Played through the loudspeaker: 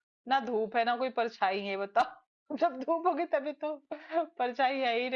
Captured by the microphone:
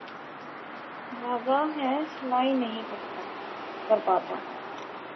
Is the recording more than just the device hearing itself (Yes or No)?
Yes